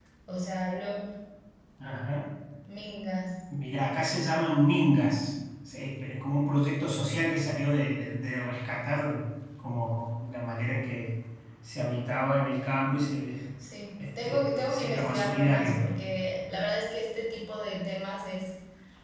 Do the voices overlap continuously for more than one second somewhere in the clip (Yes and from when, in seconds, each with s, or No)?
Yes, from 14.2 s